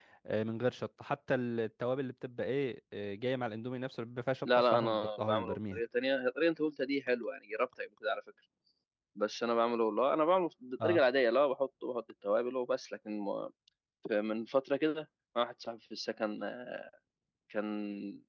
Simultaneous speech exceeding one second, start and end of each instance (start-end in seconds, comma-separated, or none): 4.5-5.8